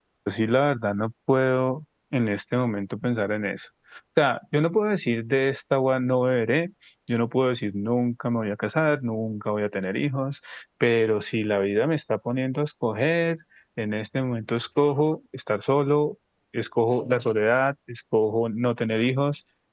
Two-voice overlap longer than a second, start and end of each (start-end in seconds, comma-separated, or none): none